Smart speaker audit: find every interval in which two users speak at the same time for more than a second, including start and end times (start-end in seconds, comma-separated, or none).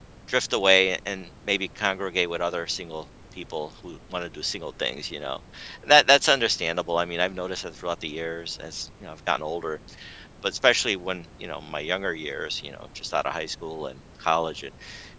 none